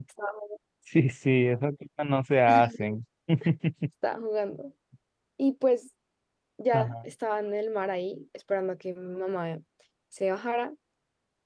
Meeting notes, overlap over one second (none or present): none